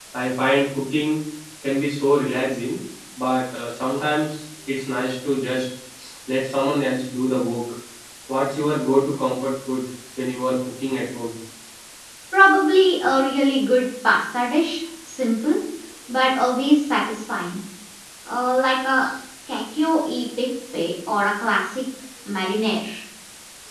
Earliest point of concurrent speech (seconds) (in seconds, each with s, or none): none